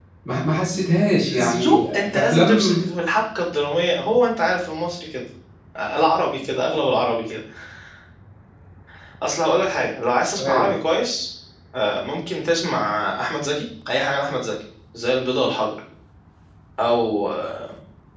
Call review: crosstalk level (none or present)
present